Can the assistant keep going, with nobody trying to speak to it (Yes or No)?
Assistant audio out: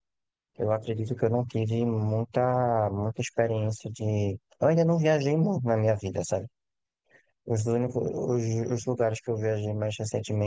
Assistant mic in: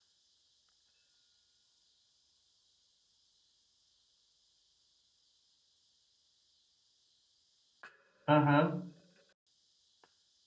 No